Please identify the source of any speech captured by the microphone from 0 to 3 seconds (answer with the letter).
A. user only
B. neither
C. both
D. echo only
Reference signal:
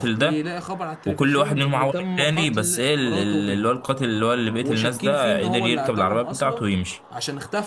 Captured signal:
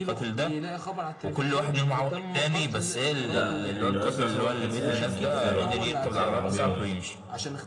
D